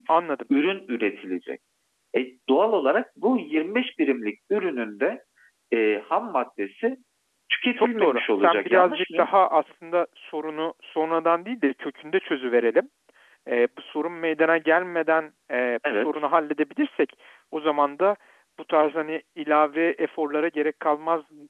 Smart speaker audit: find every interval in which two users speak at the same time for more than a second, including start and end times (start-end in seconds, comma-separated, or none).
7.8-9.3